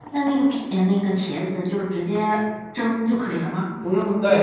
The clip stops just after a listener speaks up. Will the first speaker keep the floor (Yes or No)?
No